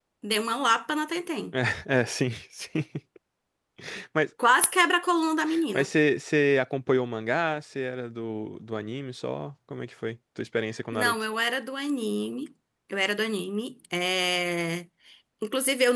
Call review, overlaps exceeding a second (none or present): none